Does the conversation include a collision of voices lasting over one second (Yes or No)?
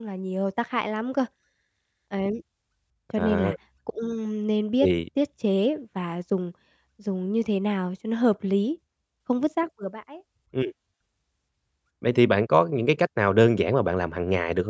No